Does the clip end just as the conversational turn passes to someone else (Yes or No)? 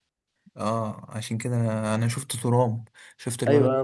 Yes